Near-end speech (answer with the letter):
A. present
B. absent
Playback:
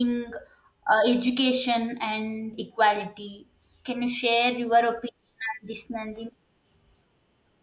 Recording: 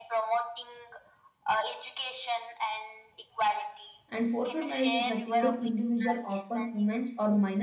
A